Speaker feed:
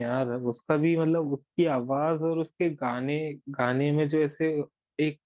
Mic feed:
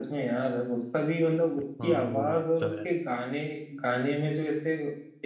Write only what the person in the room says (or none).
हाँ वो बात तो है